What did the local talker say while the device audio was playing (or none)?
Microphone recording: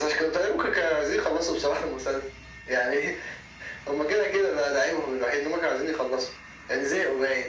none